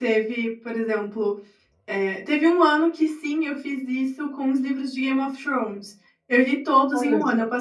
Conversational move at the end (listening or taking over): listening